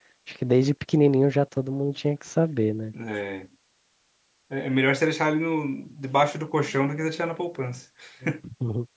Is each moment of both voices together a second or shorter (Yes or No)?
Yes